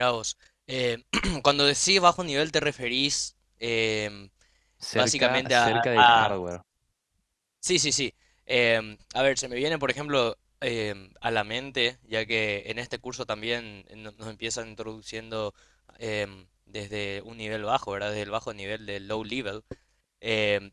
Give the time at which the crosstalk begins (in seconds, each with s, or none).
5.0 s